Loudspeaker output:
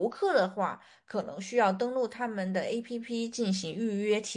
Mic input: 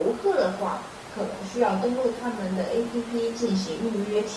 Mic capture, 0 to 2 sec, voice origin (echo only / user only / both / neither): echo only